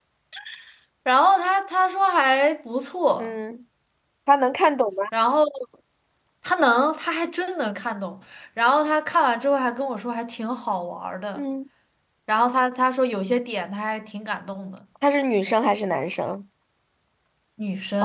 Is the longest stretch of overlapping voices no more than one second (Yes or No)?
Yes